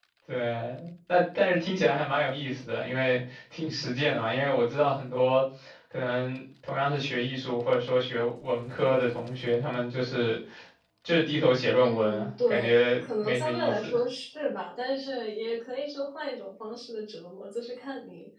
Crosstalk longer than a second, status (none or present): present